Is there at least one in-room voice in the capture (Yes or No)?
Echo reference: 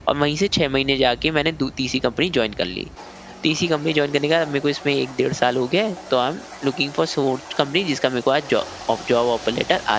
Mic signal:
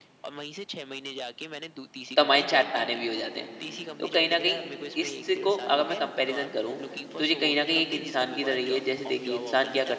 Yes